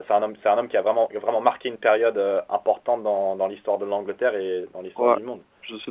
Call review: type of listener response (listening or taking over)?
taking over